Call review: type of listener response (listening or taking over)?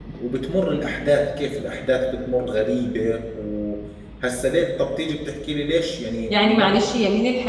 taking over